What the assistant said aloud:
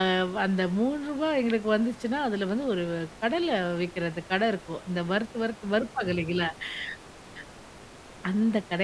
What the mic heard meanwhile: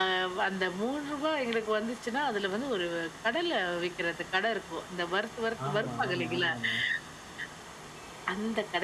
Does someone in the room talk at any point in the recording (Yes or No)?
Yes